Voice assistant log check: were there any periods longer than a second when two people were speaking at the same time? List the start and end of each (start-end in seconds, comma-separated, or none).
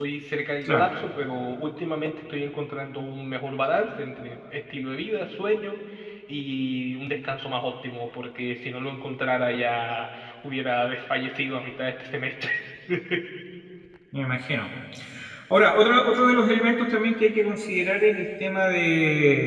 none